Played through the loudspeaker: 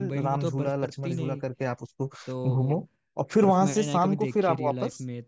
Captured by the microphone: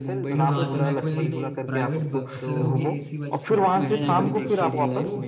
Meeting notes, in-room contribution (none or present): present